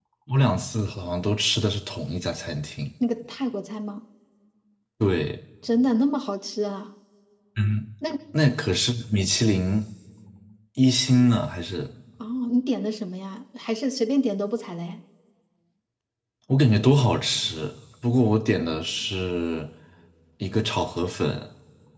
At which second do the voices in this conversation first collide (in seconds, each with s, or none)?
none